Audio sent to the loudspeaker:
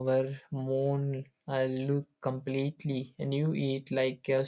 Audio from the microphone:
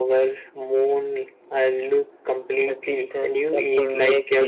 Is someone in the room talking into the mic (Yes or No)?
Yes